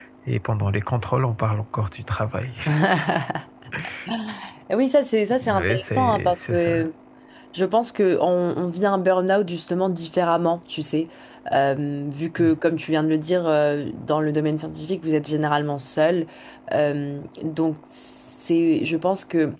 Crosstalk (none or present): present